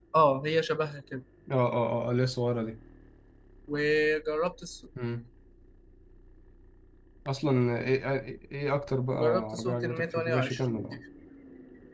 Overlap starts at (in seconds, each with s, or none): 9.1 s